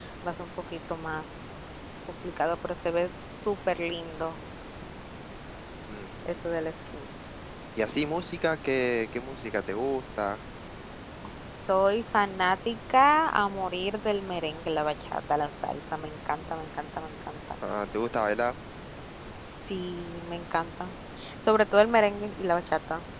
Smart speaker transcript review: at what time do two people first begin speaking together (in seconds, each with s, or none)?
none